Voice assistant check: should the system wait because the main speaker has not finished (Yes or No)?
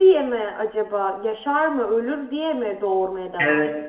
No